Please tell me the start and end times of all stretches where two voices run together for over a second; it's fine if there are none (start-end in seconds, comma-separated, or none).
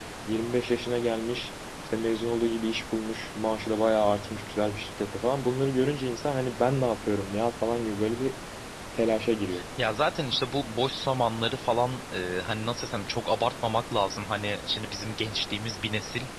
none